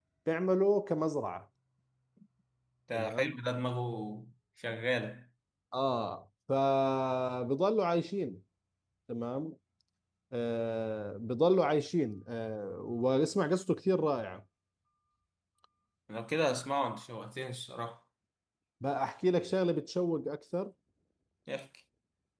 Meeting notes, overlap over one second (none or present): none